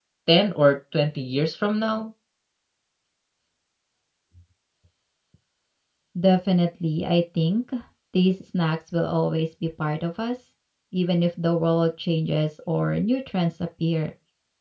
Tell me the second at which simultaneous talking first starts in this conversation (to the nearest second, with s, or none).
none